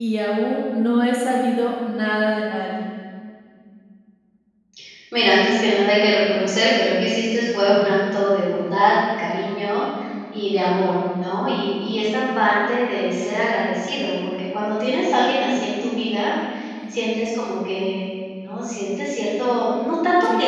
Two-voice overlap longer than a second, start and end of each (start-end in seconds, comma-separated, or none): none